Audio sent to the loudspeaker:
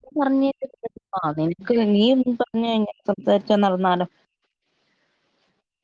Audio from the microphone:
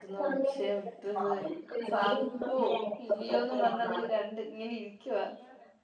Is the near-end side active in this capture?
Yes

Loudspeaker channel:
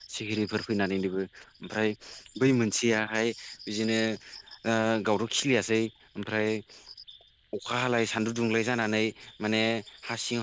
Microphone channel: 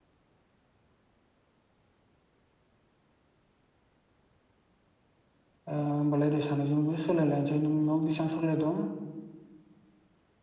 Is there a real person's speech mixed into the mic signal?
Yes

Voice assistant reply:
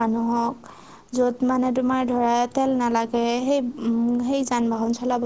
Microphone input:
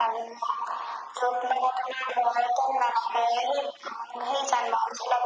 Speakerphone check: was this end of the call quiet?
Yes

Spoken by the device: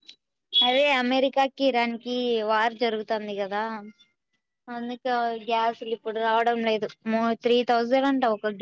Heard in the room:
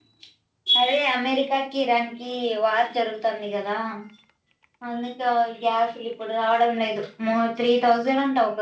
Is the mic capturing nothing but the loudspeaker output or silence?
Yes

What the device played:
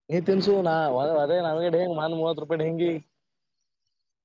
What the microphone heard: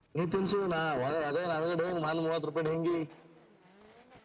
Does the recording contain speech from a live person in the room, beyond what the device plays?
No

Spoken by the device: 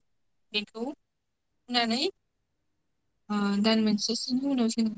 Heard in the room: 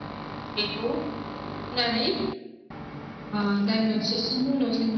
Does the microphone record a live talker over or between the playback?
No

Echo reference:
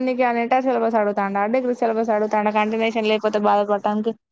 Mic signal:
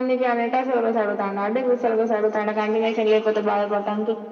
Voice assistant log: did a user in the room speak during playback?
No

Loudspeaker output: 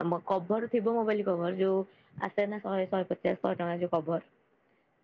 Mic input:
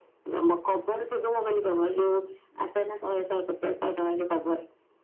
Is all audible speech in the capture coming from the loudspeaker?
Yes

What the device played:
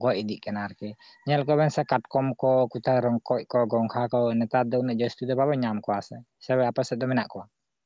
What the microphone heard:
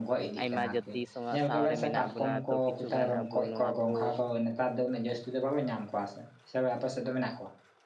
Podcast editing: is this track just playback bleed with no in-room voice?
No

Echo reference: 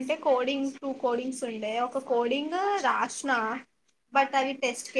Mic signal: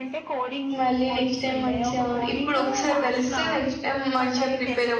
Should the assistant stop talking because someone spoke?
Yes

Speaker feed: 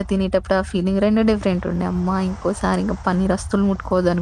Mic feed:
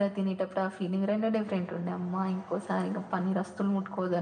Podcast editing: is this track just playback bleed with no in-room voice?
Yes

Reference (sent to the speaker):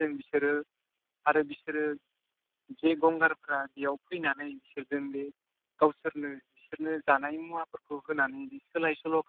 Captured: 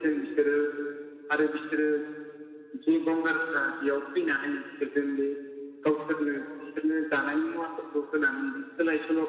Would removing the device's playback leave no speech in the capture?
Yes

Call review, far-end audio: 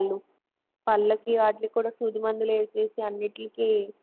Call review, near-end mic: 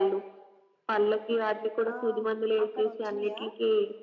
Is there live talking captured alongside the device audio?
Yes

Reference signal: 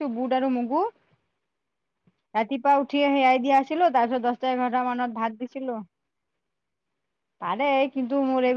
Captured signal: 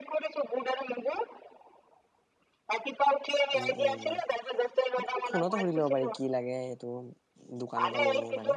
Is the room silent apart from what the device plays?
No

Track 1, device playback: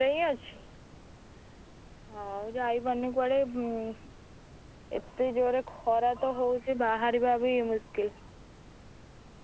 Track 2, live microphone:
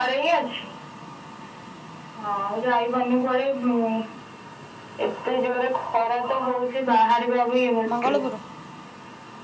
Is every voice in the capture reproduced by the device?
No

